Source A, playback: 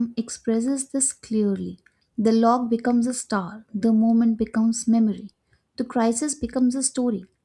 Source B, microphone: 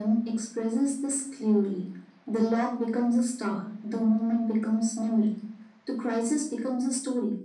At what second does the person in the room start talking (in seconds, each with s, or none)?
none